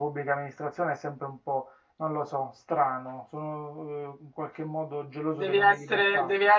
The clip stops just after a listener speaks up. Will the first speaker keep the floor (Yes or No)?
No